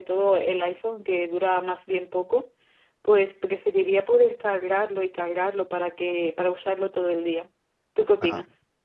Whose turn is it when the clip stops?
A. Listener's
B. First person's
A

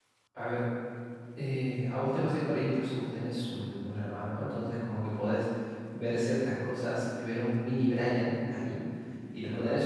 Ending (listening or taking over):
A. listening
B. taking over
A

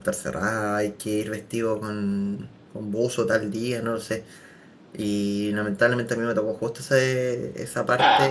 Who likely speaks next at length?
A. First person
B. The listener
A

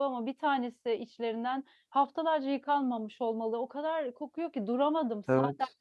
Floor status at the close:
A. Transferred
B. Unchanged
B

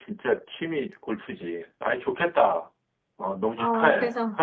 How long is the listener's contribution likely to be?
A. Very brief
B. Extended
B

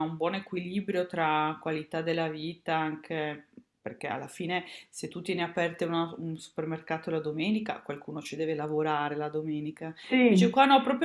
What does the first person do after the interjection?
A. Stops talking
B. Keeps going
B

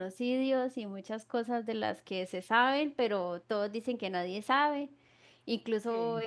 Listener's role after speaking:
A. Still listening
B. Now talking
A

